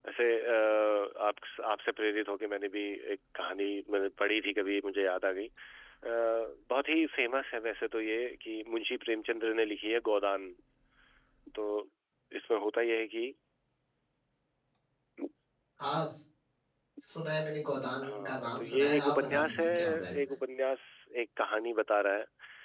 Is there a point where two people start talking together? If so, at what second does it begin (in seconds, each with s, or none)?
18.0 s